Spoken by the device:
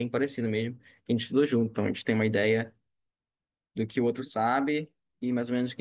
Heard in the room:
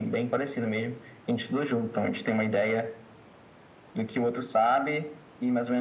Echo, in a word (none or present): present